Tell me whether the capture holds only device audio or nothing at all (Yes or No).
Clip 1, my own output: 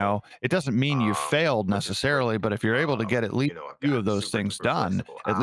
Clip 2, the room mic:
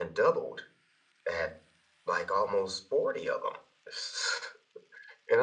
No